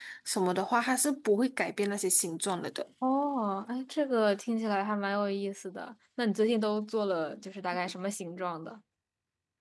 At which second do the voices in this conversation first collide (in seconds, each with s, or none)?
none